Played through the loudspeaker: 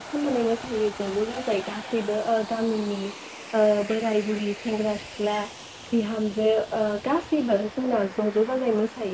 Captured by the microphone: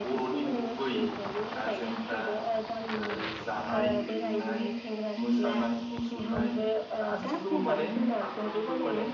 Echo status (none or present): present